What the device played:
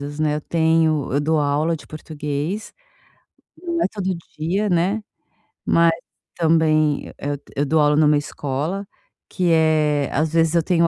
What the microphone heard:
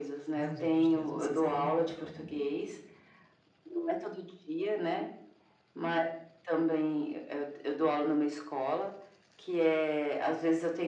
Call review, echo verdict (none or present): present